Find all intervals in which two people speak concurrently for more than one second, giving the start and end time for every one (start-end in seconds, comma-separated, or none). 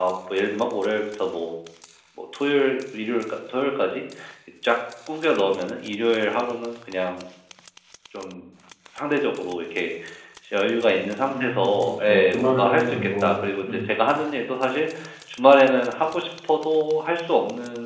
11.3-13.9